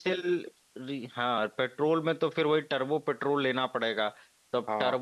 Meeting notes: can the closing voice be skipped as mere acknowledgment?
Yes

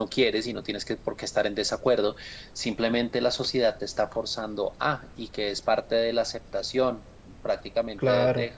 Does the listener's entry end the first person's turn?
No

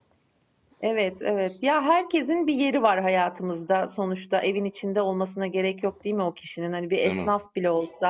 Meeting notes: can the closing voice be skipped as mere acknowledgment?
Yes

